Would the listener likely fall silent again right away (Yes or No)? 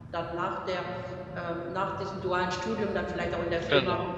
Yes